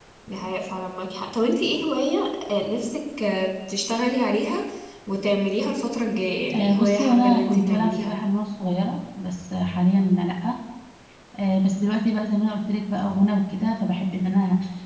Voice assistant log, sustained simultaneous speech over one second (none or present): present